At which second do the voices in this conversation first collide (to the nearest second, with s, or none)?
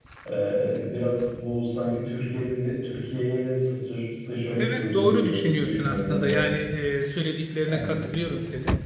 5 s